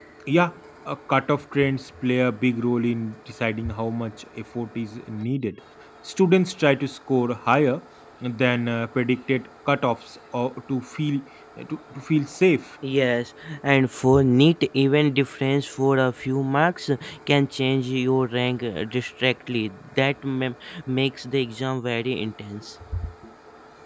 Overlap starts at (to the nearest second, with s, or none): none